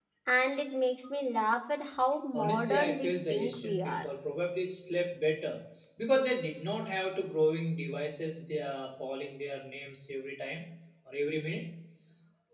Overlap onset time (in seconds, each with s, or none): 2.3 s